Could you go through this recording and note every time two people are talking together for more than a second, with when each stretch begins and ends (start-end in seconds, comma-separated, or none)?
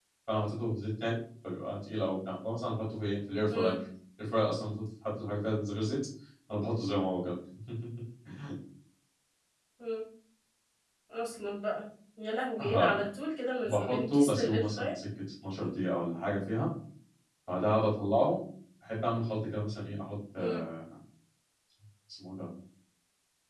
13.6-14.9